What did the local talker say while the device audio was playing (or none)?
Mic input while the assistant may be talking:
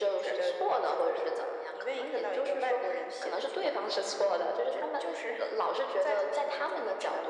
none